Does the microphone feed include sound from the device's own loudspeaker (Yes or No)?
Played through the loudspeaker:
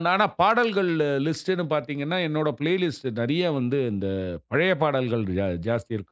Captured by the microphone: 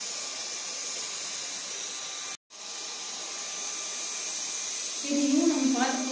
No